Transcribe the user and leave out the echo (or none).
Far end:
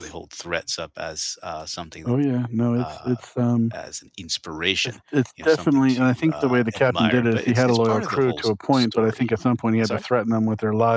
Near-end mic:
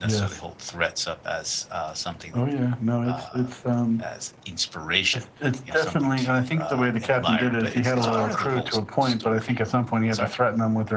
Uh, w